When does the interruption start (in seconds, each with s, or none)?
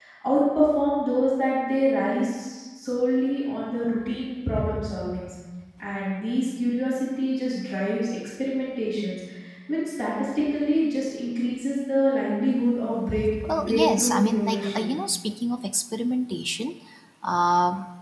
13.4 s